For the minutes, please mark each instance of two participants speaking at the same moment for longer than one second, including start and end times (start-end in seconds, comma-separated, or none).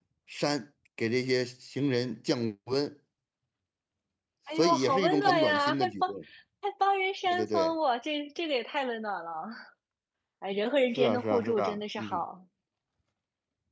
4.5-6.1, 11.0-12.2